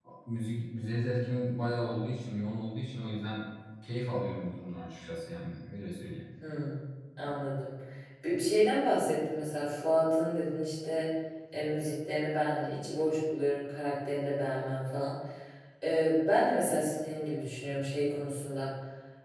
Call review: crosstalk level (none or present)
none